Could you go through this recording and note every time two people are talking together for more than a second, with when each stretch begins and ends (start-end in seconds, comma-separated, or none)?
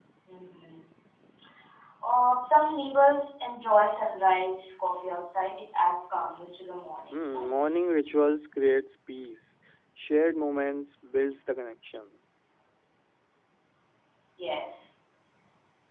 none